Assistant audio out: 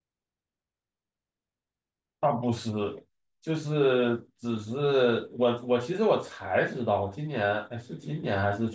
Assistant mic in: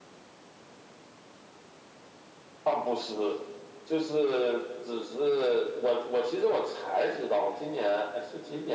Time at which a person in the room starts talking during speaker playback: none

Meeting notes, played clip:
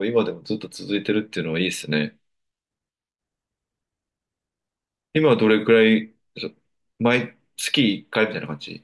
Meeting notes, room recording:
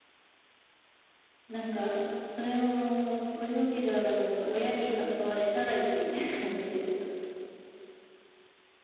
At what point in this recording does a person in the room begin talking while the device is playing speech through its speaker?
1.5 s

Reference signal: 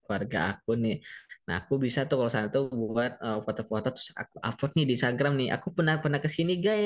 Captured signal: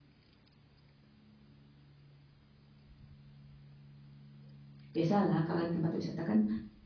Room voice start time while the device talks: 4.9 s

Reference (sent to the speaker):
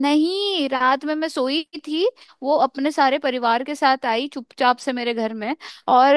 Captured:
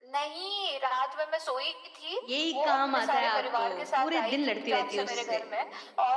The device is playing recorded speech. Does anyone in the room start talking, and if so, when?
2.2 s

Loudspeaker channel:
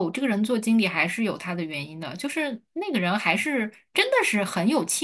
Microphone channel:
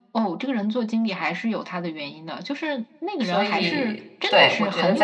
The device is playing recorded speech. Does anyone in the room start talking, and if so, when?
3.2 s

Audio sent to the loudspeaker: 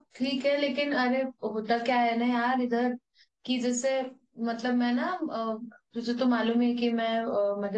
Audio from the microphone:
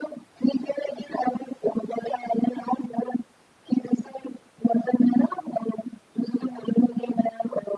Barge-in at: none

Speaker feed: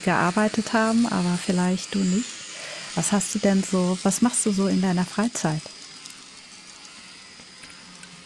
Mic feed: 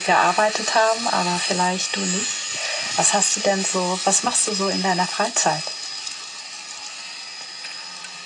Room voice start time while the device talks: none

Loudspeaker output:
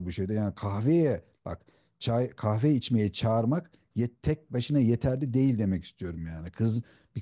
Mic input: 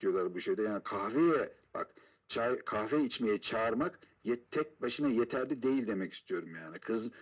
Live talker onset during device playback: none

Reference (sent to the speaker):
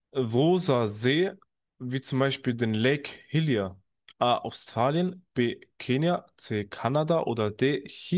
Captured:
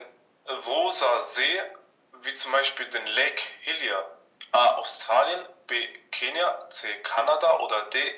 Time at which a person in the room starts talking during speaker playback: none

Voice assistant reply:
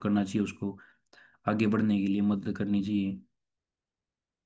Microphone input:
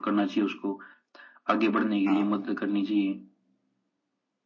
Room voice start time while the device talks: 2.1 s

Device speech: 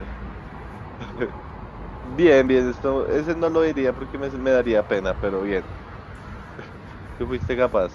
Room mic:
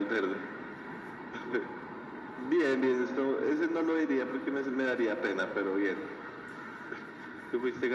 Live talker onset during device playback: none

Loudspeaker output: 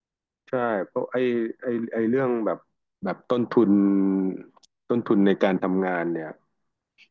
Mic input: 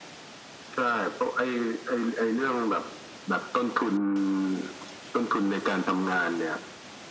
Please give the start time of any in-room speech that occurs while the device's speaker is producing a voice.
none

